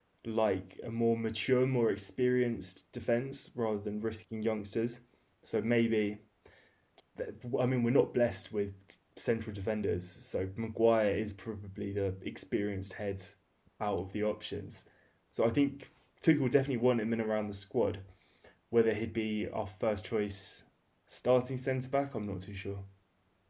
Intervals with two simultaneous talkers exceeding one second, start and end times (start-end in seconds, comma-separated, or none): none